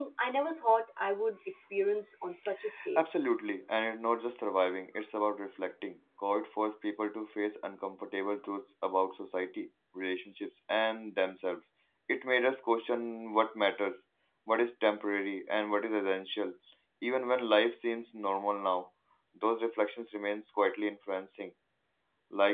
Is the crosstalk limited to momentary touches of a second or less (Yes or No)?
Yes